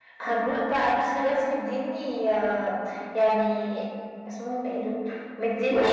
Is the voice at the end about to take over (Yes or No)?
No